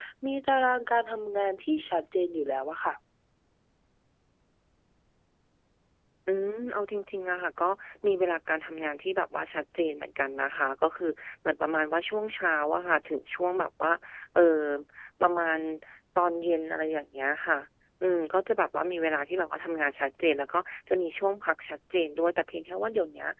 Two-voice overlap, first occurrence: none

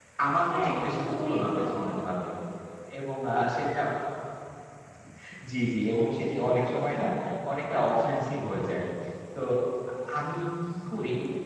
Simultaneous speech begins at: 0.5 s

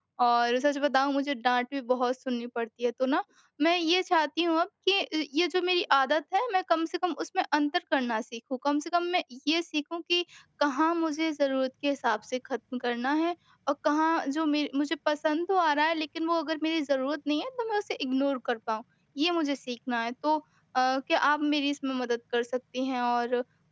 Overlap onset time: none

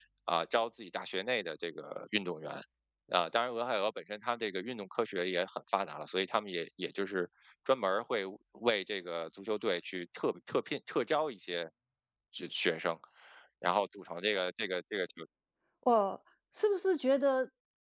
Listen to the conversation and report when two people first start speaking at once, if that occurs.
none

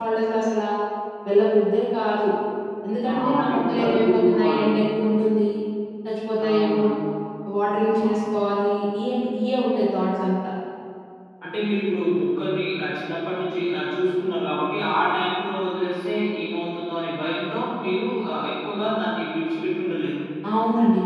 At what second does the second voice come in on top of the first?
3.1 s

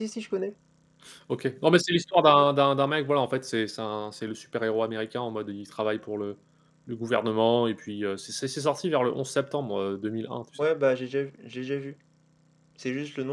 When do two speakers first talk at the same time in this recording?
none

